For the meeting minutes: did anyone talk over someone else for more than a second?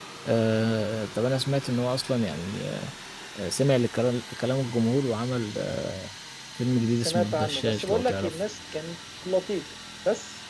Yes, from 7.0 s

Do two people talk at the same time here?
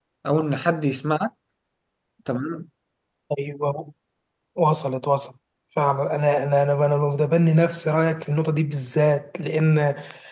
No

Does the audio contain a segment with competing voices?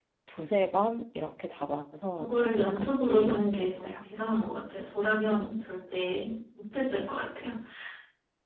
Yes, from 2.2 s

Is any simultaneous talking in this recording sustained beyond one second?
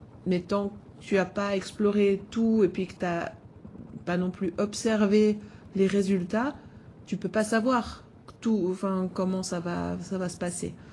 No

